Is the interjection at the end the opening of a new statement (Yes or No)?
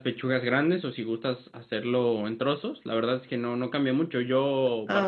No